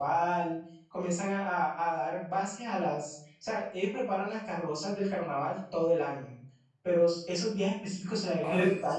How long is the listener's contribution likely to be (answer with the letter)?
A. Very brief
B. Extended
A